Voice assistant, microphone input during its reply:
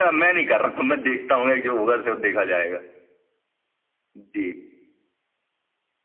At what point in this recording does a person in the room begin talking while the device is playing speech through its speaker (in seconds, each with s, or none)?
none